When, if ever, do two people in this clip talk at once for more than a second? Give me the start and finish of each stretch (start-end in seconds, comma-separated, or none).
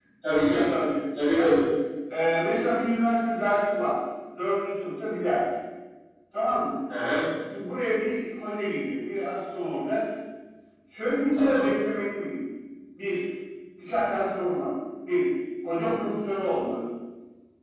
none